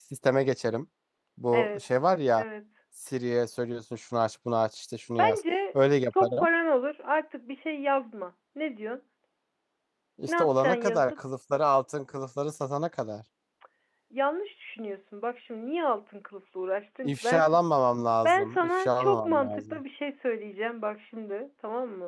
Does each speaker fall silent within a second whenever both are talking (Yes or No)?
No